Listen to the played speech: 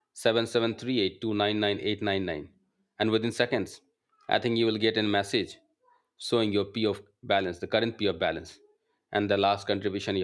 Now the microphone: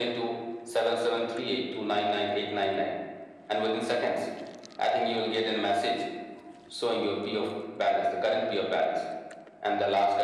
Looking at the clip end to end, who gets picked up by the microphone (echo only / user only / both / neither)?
echo only